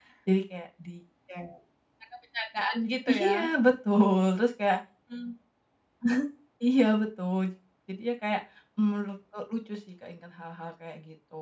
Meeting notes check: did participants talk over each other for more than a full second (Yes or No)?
No